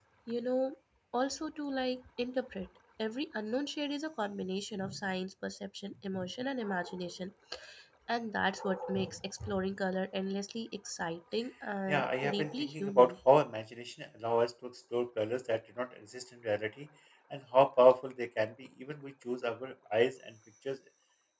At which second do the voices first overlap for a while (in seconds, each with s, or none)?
11.9 s